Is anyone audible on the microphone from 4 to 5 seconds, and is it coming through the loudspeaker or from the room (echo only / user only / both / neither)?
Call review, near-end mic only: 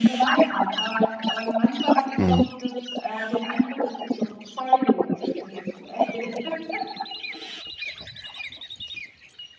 echo only